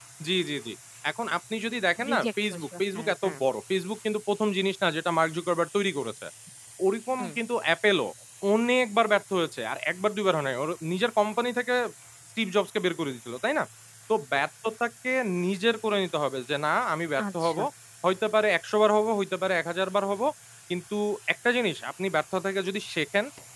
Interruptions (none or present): present